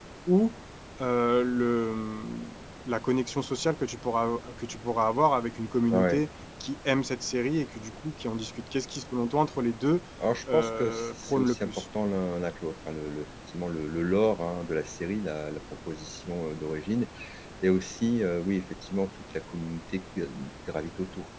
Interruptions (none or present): present